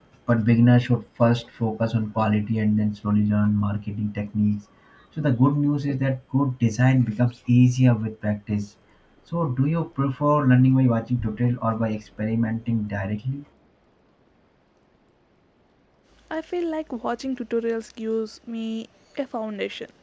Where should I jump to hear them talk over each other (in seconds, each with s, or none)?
none